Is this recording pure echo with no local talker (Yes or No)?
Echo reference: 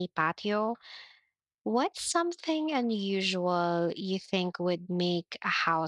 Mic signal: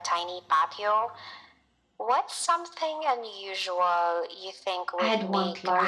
No